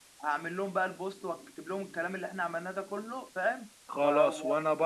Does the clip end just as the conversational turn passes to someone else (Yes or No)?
Yes